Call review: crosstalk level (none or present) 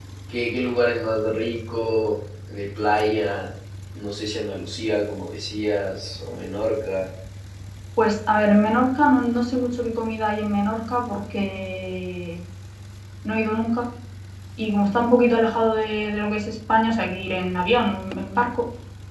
none